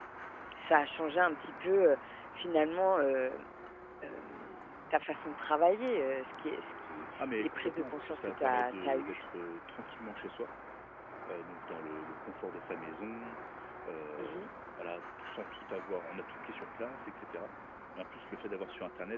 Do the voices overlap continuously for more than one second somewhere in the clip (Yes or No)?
Yes